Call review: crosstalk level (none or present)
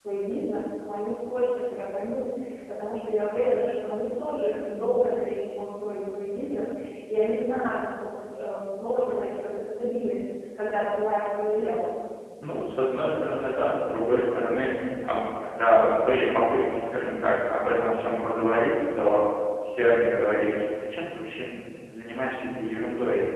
none